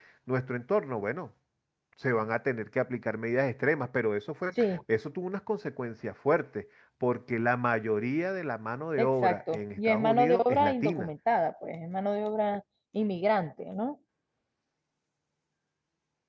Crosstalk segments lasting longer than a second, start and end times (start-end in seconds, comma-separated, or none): 9.0-11.1